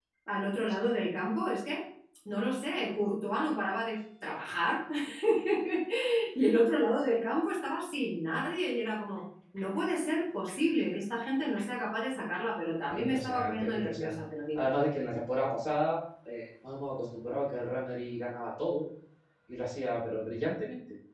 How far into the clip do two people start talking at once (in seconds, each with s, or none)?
12.9 s